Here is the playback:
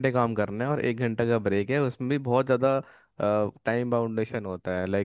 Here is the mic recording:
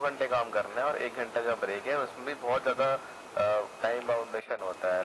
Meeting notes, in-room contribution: none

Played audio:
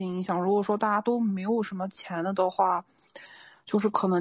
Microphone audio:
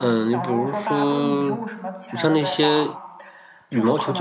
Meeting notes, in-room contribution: present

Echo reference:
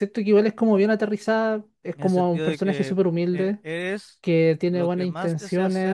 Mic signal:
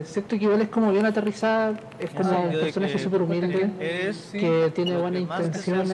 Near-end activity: present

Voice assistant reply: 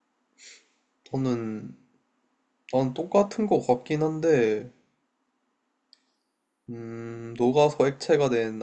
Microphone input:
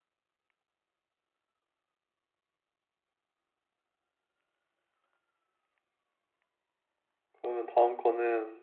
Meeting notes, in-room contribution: present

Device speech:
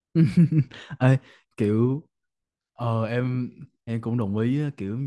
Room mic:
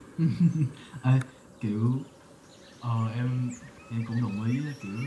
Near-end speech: none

